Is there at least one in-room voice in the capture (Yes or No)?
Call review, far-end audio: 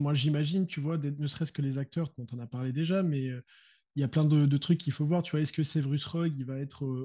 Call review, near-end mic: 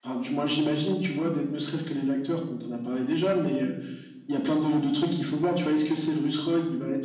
No